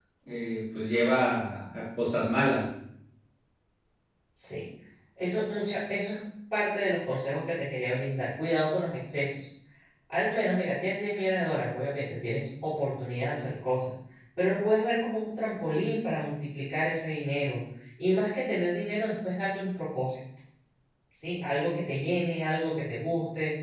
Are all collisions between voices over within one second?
Yes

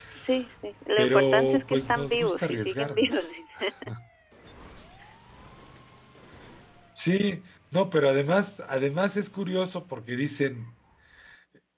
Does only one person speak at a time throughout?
No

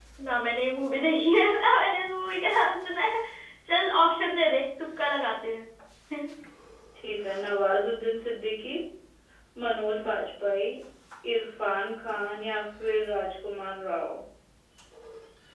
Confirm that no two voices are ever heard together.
Yes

